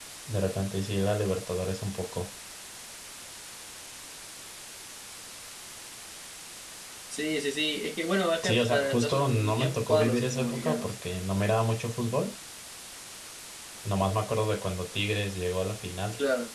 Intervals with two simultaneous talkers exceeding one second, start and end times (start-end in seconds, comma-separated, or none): 8.4-10.9